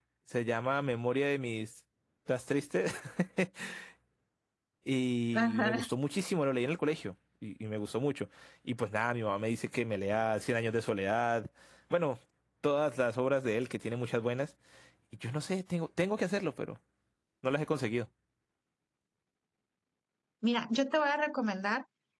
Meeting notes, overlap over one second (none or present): none